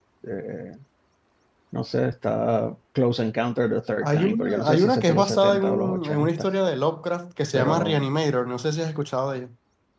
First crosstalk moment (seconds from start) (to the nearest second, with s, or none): 4 s